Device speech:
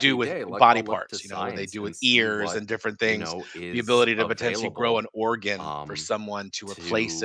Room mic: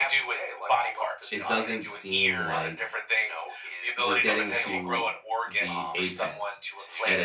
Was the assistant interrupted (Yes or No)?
Yes